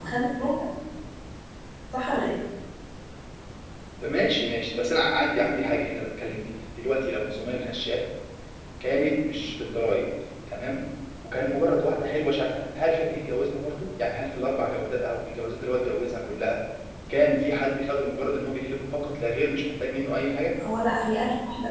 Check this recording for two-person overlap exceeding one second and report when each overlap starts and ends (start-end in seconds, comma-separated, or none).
none